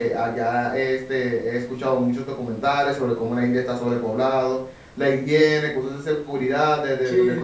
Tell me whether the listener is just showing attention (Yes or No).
No